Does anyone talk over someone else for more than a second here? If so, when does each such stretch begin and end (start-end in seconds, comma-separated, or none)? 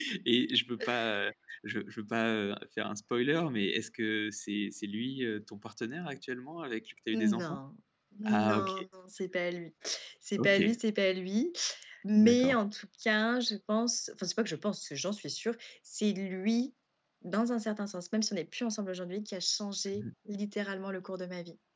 none